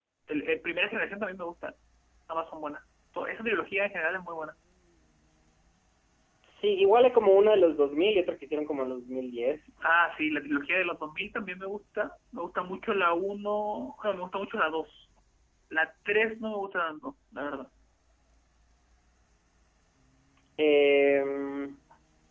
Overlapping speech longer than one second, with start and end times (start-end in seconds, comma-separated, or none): none